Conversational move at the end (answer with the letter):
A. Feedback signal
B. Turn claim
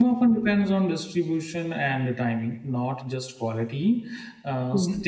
A